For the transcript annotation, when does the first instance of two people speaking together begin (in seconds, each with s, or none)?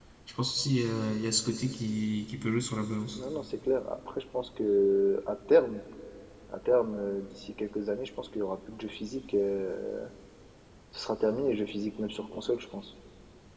none